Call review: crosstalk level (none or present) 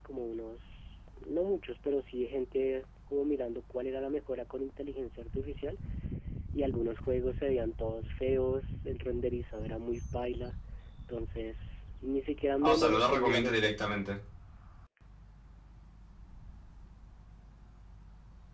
present